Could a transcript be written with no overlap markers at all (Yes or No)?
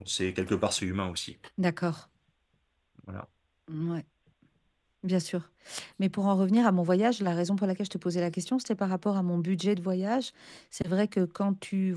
Yes